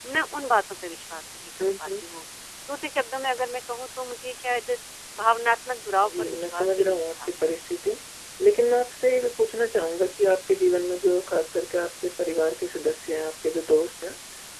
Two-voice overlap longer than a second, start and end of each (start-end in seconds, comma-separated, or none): 6.0-7.5